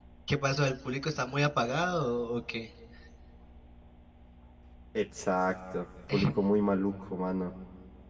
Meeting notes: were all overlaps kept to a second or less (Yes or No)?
Yes